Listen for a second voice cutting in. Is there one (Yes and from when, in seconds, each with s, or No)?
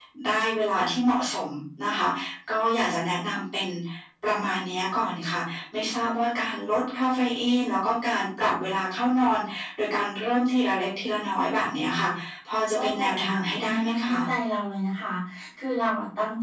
Yes, from 12.8 s